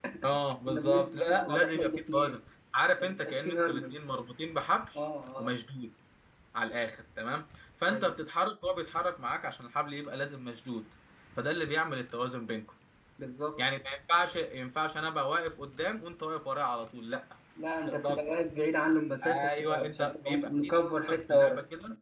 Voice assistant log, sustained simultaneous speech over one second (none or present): present